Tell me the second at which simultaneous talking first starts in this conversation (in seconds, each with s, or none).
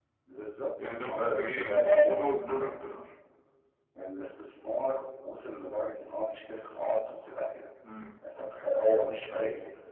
1.0 s